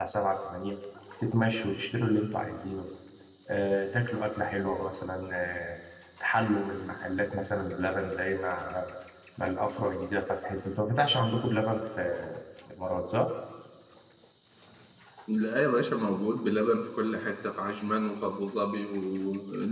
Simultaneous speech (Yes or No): No